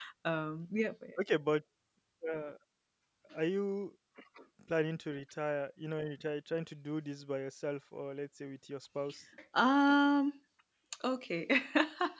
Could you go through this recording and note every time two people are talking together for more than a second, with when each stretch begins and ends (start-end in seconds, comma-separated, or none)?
none